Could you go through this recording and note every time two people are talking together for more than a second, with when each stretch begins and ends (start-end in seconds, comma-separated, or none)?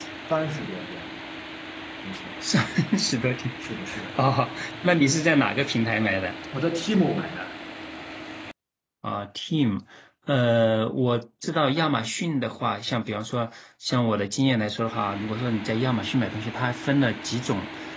none